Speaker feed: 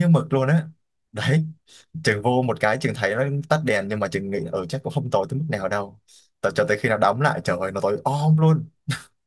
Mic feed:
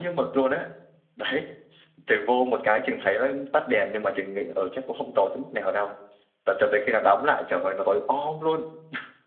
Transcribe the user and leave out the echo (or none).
none